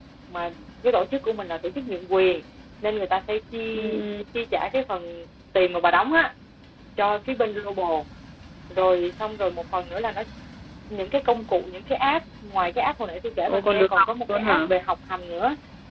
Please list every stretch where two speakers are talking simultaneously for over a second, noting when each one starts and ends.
13.5-14.7

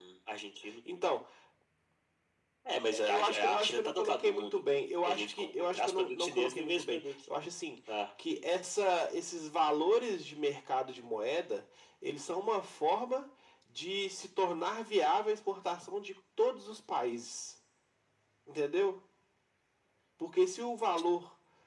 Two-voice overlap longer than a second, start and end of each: 2.9-4.6, 5.0-7.0

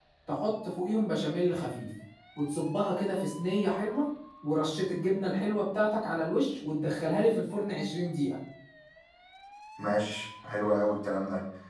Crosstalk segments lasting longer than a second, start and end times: none

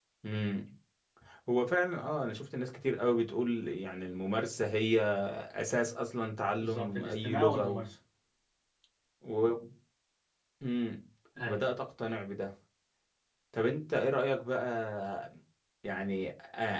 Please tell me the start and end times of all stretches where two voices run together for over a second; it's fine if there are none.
6.6-7.8

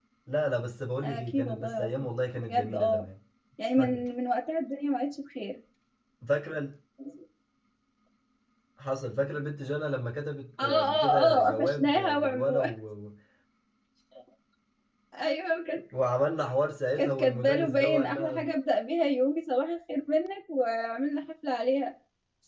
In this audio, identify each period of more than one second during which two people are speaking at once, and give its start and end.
1.0-3.0, 10.6-12.6, 17.0-18.5

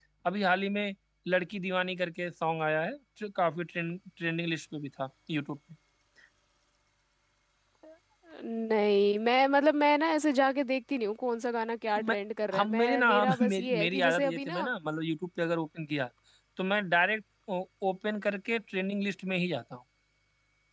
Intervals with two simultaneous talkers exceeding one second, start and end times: 12.5-14.7

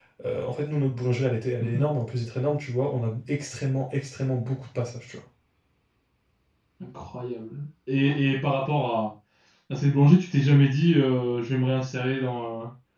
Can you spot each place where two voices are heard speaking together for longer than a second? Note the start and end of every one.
none

